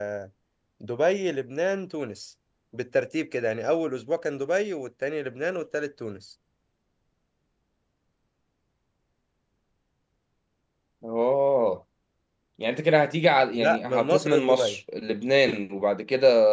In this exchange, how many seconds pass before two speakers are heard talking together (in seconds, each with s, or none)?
13.5 s